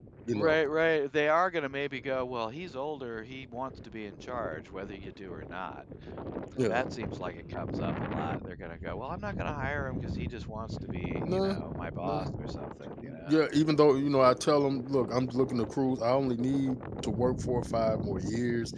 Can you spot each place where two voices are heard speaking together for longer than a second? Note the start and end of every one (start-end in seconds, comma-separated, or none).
none